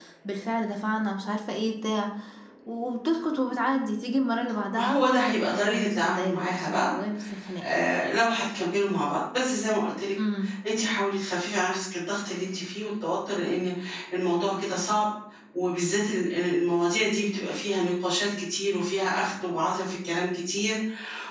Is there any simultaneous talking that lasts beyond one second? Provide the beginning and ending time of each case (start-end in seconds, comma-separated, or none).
4.8-6.9